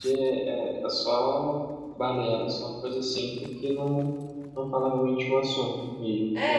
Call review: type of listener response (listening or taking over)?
taking over